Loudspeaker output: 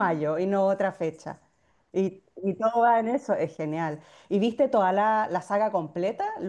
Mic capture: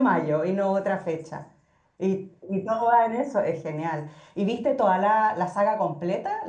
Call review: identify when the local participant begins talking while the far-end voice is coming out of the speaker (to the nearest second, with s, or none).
none